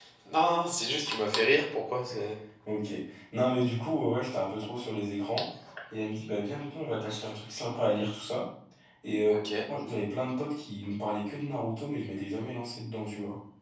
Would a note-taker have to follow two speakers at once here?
No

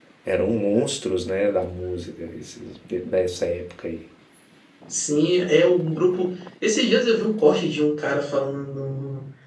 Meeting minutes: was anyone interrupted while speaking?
No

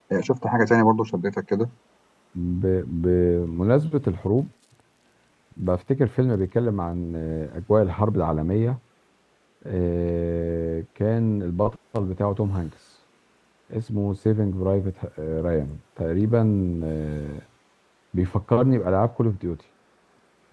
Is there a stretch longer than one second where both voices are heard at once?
No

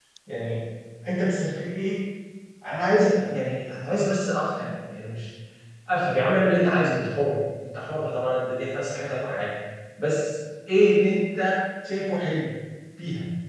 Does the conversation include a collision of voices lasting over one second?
No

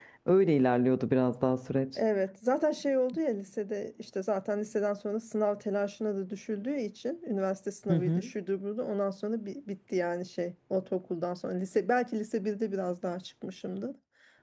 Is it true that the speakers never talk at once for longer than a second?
Yes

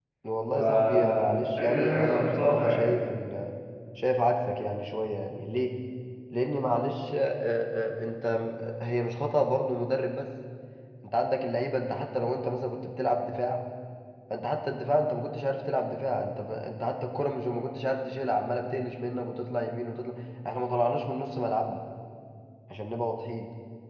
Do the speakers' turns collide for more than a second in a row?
Yes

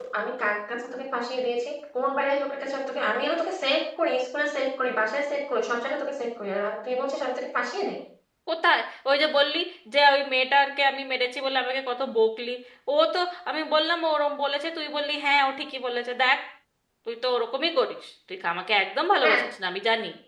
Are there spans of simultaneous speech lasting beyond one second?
No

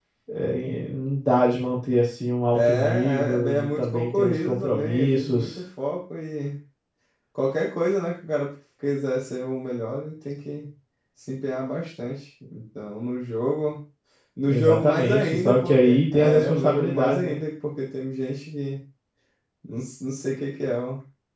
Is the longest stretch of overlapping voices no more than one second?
No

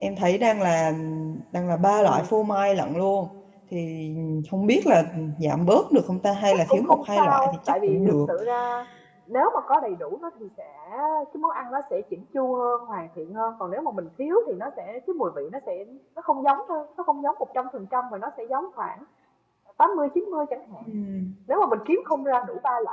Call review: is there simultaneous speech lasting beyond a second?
Yes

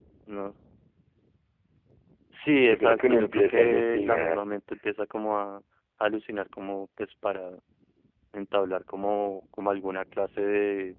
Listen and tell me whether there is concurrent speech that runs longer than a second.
Yes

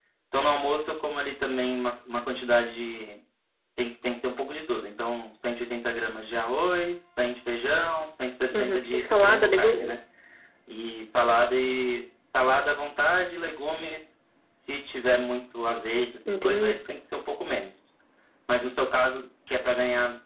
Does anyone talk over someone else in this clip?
Yes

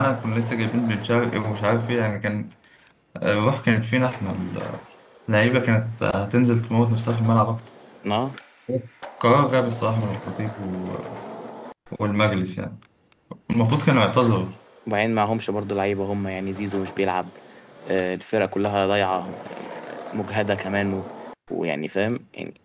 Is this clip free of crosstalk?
Yes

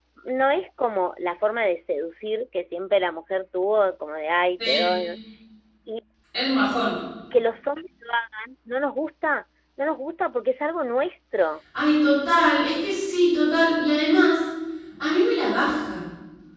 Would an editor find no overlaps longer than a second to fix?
Yes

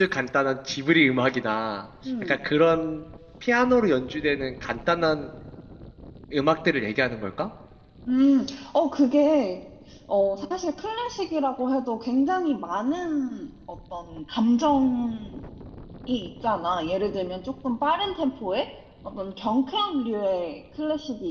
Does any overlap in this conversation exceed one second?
No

